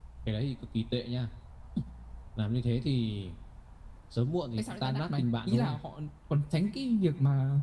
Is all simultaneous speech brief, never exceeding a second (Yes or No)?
No